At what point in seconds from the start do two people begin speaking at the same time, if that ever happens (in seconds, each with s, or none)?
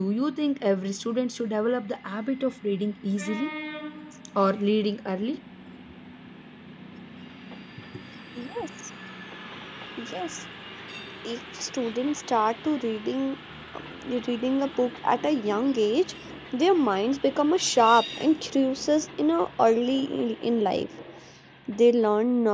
none